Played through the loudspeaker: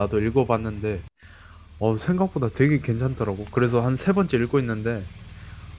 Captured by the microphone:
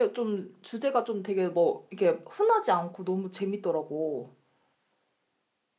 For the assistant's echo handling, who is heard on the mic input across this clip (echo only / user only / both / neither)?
user only